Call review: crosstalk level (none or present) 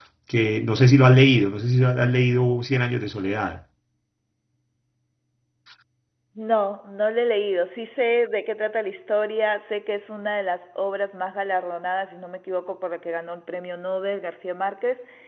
none